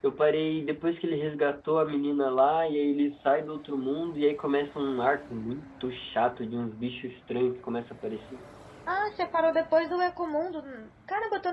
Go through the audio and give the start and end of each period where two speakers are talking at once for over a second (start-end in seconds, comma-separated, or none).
none